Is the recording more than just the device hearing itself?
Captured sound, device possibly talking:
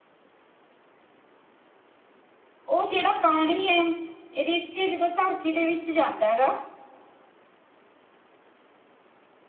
Yes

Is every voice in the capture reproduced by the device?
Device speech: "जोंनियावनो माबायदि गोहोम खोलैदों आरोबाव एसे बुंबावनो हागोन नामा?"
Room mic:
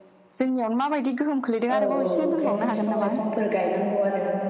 No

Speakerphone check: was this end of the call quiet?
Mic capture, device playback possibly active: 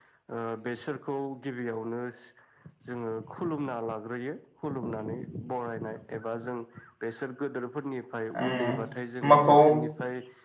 No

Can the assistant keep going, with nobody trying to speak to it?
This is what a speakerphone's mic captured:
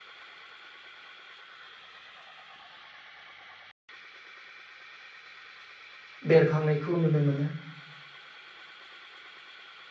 No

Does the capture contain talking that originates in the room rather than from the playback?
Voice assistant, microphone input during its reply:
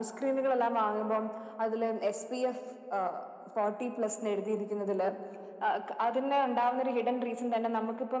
No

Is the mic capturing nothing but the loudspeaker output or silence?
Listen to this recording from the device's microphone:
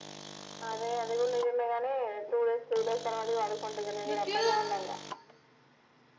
No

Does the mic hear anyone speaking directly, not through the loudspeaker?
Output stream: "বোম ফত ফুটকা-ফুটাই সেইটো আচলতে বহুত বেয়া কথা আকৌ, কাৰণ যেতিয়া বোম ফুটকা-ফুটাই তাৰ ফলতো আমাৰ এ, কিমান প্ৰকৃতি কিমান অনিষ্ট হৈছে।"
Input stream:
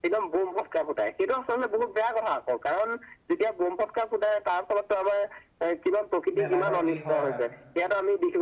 Yes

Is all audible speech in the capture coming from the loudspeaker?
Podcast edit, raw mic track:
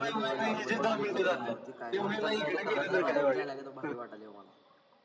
No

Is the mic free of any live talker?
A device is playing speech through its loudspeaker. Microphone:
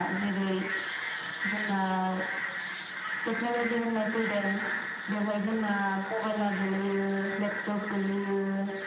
Yes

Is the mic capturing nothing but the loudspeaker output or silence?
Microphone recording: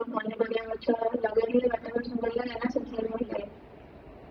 Yes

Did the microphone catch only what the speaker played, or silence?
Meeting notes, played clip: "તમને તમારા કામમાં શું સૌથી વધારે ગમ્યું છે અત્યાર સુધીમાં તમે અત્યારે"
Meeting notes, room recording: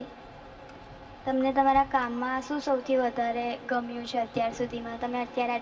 Yes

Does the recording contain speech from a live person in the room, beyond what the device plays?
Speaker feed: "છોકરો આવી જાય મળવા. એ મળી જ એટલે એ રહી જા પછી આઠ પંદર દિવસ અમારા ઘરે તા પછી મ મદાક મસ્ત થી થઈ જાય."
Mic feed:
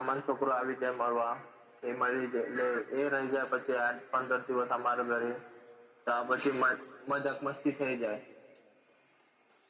No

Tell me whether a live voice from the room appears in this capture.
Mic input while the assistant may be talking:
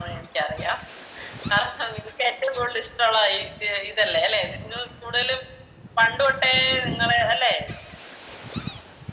No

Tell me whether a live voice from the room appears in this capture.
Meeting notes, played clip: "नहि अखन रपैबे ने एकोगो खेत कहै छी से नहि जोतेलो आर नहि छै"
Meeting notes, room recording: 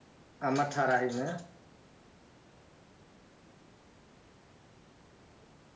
Yes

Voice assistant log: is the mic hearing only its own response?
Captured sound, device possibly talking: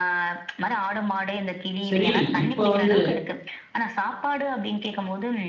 No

